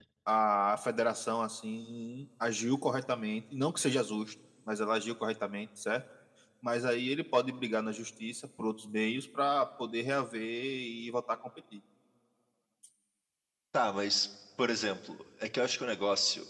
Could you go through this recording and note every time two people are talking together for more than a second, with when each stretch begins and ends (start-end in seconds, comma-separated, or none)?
none